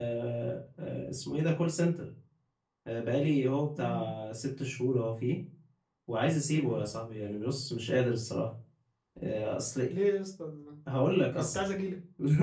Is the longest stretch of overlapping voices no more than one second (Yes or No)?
Yes